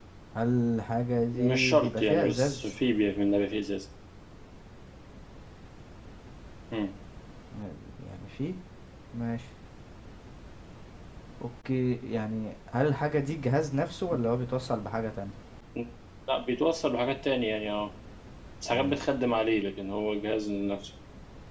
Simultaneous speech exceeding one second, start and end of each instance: 1.3-2.7

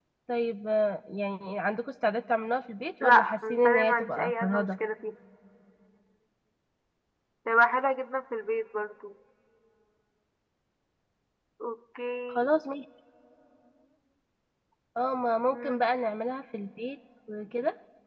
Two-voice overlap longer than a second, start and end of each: 3.0-4.7

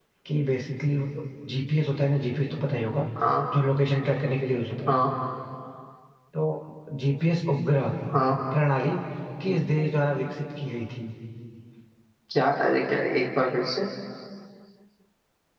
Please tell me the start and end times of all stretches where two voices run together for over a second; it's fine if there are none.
none

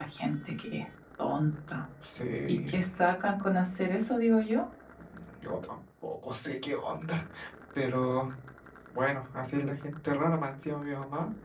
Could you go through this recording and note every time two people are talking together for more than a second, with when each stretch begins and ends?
none

